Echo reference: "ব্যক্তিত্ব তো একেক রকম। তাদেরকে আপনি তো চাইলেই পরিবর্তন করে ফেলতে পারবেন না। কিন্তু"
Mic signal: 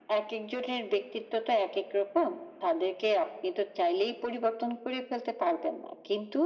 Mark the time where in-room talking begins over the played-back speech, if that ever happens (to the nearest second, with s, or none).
none